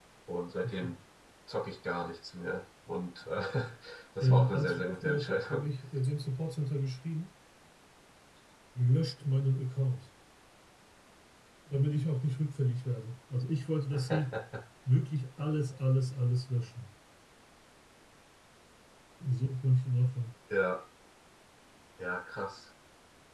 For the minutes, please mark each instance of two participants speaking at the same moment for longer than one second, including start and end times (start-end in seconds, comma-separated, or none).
4.2-5.7